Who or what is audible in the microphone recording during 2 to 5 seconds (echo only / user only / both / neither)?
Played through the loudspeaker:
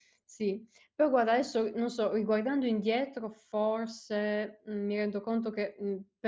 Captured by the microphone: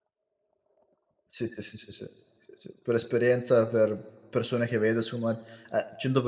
user only